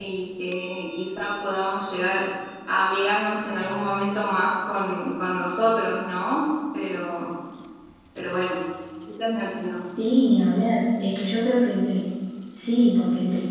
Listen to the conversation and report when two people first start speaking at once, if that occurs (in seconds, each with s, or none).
none